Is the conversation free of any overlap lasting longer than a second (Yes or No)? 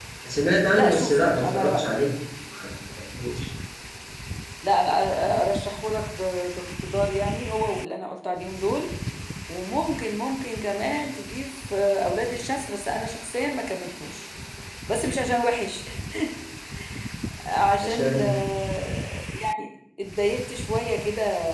No